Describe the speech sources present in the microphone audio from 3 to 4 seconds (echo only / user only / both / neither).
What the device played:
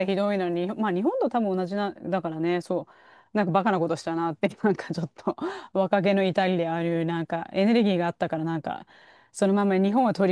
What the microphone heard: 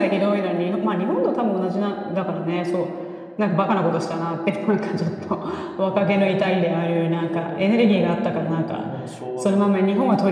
echo only